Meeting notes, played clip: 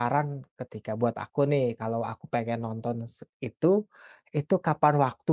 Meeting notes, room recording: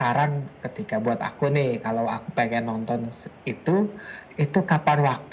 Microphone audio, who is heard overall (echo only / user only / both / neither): echo only